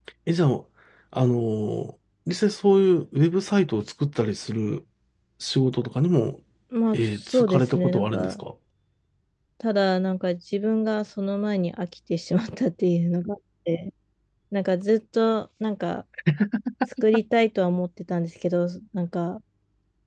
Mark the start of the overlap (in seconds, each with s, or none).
6.9 s